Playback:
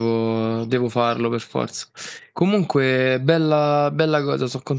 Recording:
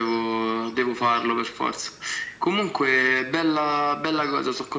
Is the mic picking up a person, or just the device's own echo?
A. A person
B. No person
B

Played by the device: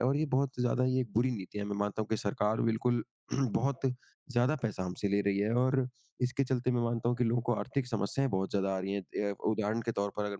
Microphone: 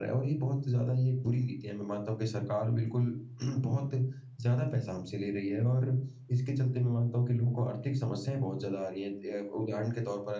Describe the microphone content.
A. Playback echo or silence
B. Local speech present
A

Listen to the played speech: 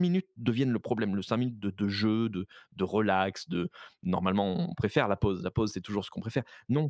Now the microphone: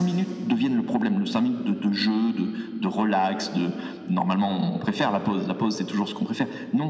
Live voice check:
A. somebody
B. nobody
B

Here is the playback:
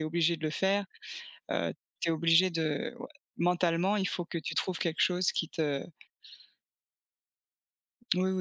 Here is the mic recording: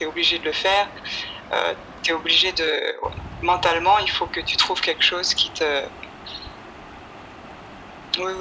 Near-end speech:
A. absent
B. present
A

